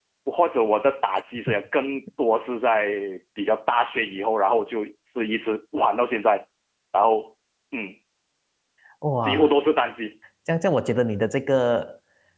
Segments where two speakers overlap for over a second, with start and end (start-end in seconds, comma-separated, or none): none